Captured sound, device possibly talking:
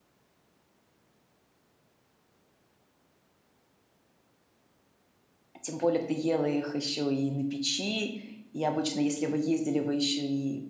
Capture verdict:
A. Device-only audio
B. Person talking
B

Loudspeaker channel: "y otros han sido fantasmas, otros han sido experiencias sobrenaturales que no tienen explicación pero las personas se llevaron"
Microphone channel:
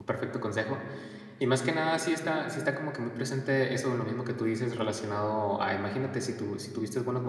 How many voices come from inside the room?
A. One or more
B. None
A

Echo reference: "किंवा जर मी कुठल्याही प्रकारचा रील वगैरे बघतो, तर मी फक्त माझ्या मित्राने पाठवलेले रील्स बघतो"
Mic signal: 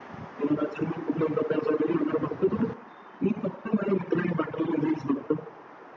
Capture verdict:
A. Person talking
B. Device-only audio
B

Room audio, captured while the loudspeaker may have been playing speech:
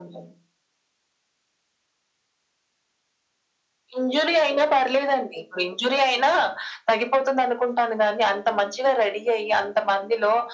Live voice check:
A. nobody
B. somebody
A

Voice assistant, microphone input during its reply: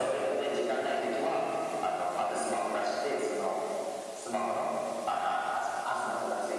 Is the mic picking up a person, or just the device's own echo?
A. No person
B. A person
A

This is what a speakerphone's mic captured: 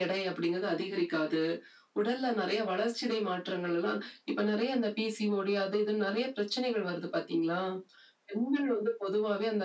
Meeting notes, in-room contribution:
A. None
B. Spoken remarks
A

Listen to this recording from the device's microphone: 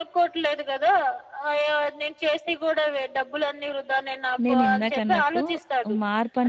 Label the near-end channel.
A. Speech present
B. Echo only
A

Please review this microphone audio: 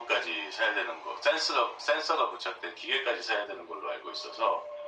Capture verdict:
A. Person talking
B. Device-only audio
B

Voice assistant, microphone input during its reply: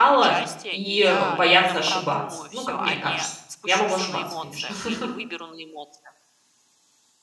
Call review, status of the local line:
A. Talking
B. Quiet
A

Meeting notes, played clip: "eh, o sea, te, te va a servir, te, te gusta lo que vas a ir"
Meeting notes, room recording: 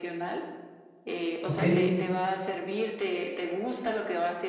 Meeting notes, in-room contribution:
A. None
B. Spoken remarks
B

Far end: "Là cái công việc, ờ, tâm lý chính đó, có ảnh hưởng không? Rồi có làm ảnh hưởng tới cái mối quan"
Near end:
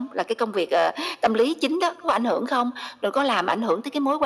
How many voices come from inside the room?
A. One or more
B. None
B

